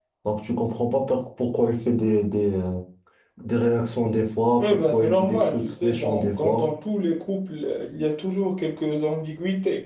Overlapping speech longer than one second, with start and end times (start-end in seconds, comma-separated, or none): 4.6-6.7